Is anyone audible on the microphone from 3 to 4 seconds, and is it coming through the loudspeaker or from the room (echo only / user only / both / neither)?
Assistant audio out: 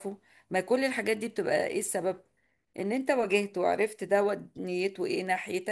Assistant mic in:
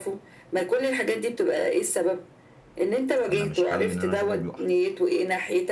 both